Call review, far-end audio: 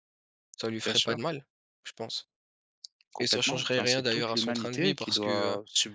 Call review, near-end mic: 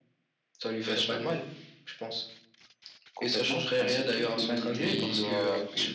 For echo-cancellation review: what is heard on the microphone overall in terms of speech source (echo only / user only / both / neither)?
both